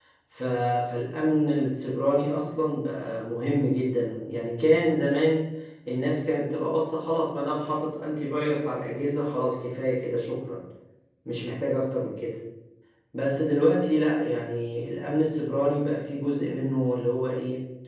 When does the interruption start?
none

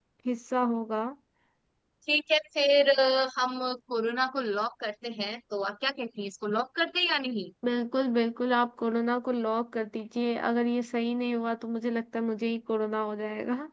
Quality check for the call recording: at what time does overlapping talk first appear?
none

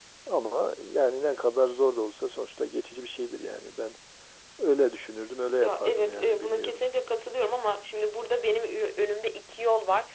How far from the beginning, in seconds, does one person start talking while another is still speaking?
6 s

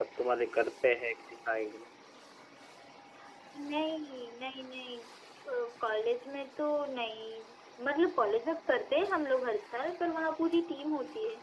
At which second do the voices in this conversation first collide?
none

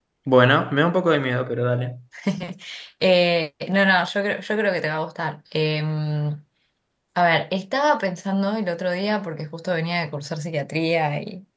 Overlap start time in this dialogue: none

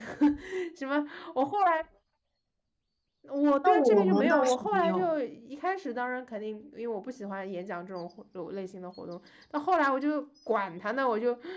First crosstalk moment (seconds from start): 4 s

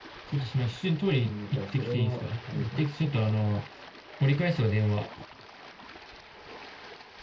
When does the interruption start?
1 s

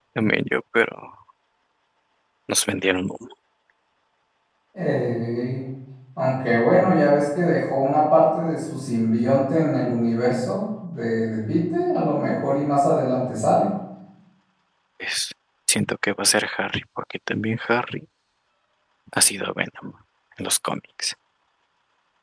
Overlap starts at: none

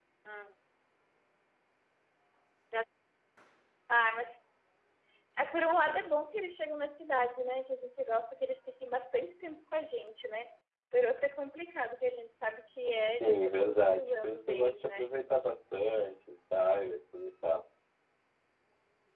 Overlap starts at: 13 s

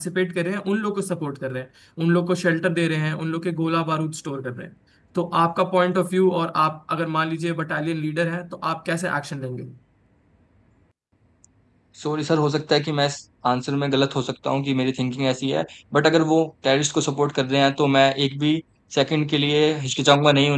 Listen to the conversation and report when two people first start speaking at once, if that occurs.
none

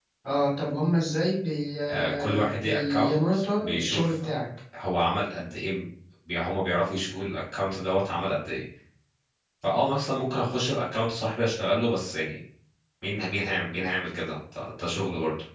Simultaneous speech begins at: 2 s

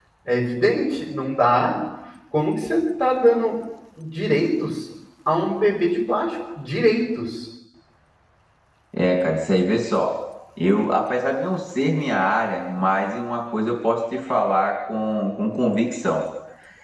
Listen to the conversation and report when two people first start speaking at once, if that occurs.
none

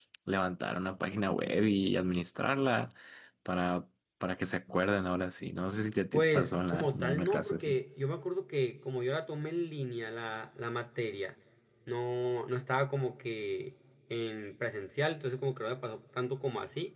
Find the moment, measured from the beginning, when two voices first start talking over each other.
6 s

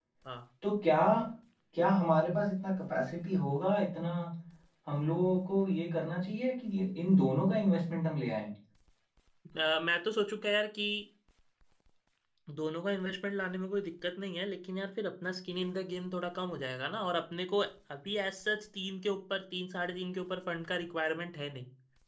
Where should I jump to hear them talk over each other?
none

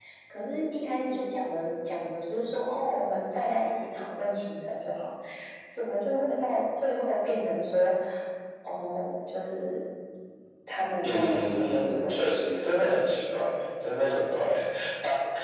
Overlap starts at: 11 s

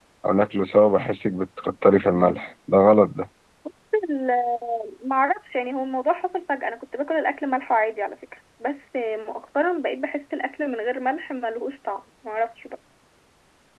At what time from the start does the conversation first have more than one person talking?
none

